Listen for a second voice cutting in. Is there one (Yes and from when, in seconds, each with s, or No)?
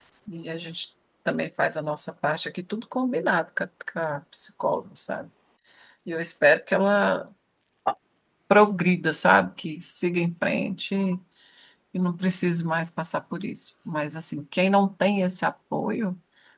No